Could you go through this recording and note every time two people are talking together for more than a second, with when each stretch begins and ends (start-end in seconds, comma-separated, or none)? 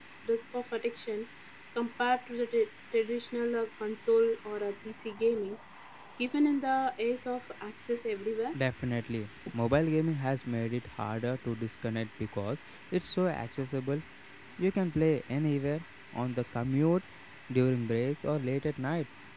none